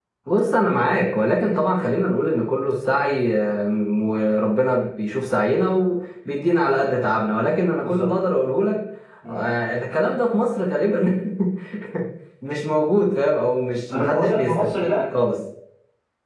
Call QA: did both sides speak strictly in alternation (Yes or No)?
No